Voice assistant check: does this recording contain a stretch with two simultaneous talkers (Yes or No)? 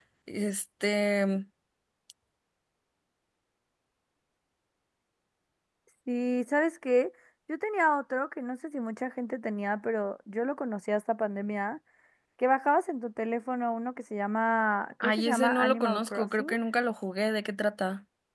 Yes